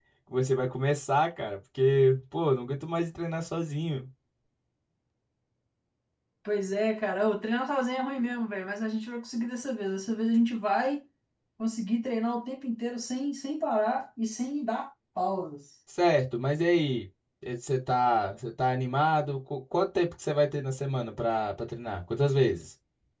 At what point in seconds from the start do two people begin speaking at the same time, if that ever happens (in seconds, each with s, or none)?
none